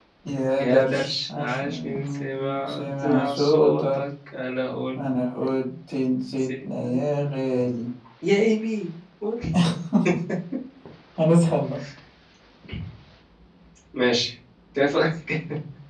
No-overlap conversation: No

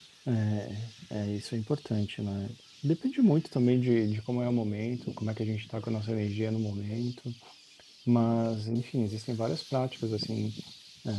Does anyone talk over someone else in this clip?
No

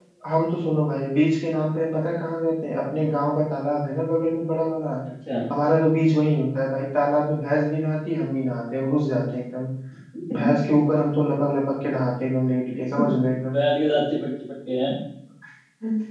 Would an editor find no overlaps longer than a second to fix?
Yes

